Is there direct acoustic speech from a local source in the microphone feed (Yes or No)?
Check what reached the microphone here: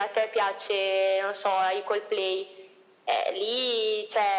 No